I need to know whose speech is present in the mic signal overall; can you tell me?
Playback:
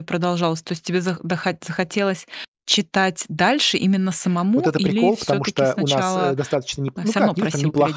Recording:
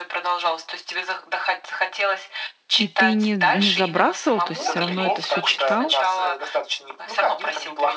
both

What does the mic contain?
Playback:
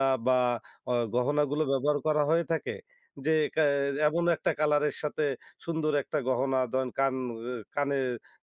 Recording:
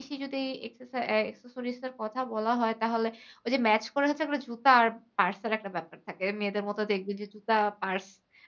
user only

